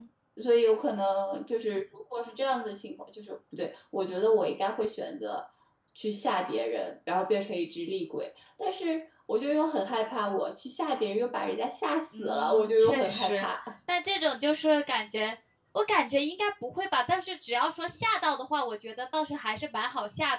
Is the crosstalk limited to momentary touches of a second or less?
No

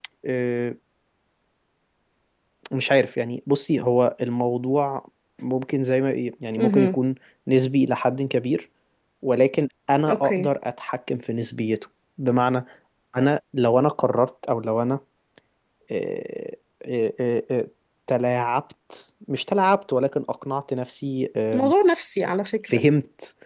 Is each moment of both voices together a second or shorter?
Yes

